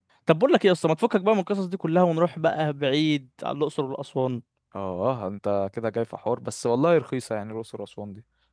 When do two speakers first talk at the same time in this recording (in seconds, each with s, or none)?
none